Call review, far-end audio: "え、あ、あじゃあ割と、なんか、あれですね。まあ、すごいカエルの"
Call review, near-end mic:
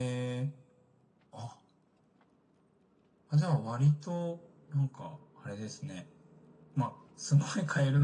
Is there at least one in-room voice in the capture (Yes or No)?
No